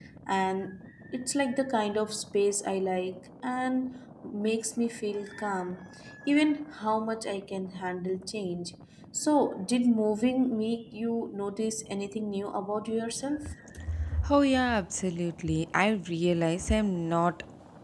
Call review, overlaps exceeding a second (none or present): none